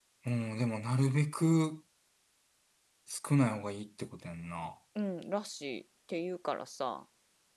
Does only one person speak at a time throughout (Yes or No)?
Yes